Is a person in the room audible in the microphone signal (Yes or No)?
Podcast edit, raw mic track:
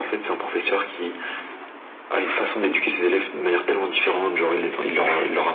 No